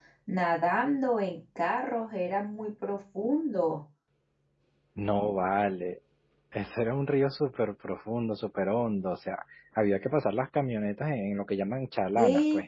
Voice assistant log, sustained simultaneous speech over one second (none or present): none